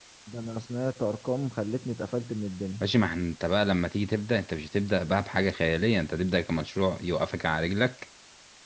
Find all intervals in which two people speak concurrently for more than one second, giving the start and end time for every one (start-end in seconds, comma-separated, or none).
none